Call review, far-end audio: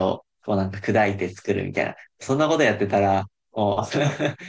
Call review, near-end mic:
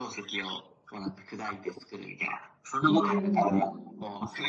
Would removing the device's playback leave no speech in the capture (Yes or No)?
No